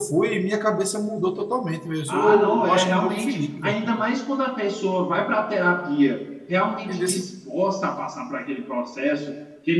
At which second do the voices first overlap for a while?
2.1 s

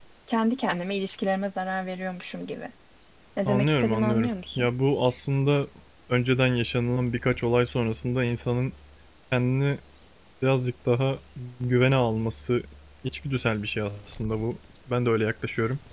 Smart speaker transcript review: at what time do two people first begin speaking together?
3.5 s

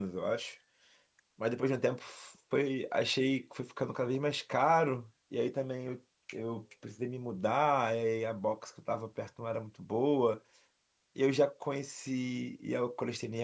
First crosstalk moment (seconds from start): none

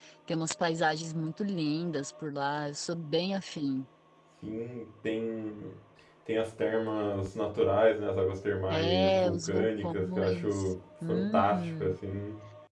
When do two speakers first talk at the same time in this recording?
8.7 s

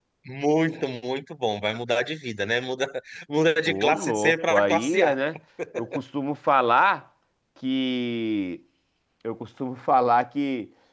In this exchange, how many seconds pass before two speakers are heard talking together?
3.7 s

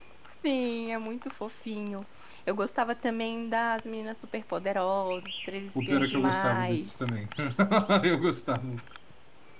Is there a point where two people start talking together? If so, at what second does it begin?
5.8 s

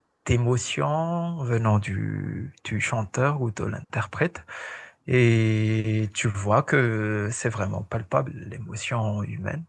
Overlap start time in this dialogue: none

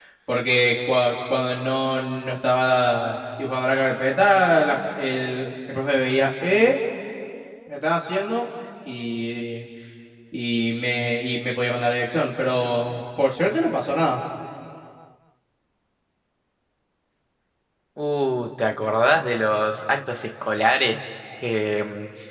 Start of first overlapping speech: none

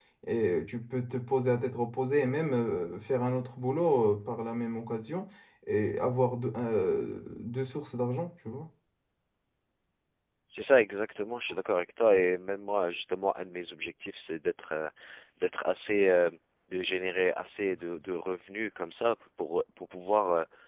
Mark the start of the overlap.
none

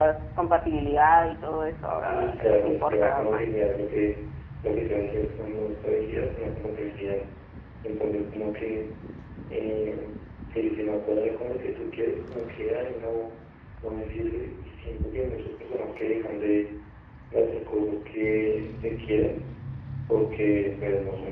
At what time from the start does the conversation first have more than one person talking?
2.1 s

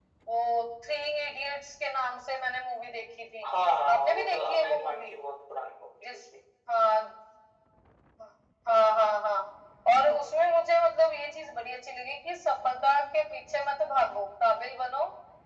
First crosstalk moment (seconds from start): 3.9 s

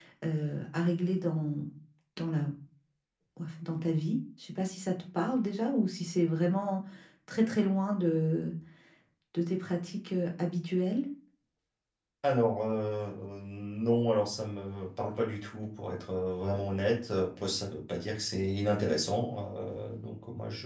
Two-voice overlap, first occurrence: none

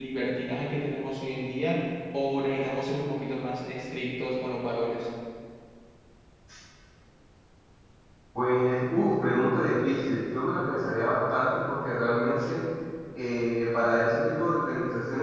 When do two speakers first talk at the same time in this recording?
none

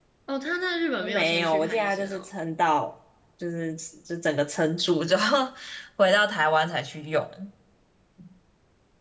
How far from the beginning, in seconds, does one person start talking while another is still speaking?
1.0 s

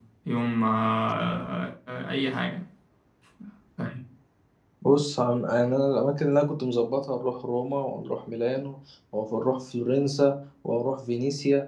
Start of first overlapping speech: none

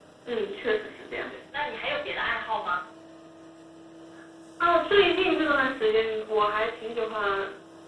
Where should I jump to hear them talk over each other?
none

